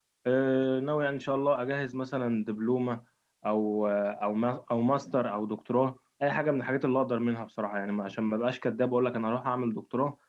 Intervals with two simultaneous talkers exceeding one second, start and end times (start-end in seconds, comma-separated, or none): none